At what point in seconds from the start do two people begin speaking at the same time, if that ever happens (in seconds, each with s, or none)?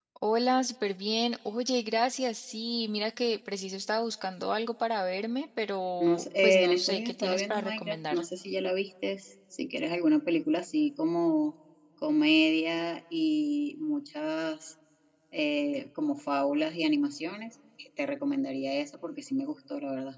6.0 s